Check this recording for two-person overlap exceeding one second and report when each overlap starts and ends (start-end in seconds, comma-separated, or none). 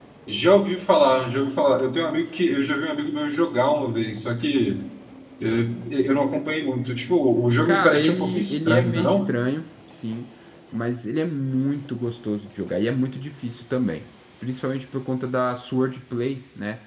7.7-9.3